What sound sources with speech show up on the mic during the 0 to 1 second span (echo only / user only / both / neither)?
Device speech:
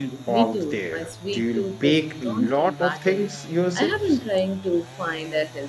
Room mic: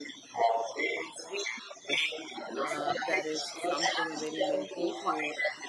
echo only